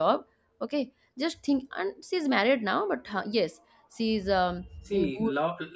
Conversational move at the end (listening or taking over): taking over